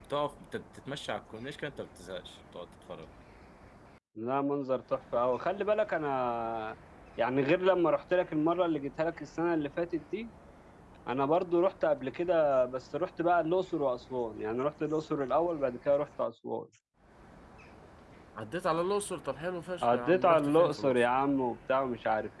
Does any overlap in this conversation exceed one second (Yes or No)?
Yes